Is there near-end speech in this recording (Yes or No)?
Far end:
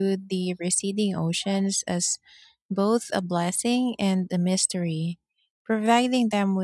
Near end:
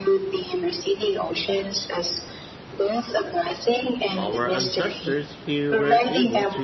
Yes